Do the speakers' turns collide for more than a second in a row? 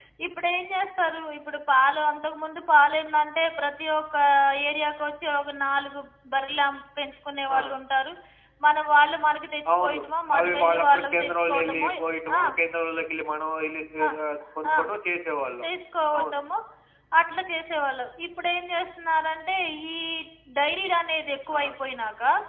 Yes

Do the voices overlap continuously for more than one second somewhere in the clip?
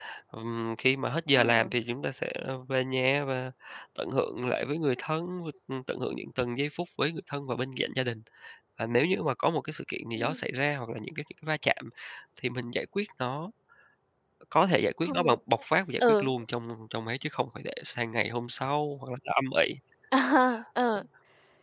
No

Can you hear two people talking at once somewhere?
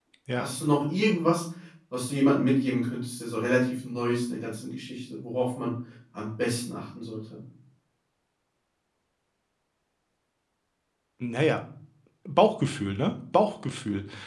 No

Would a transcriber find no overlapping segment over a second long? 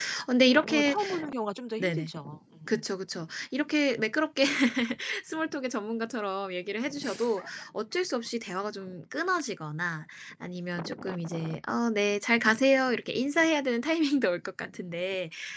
Yes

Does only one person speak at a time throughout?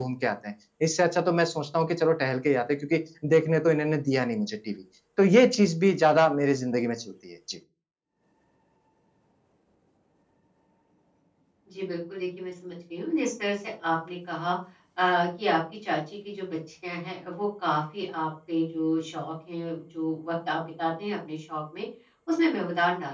Yes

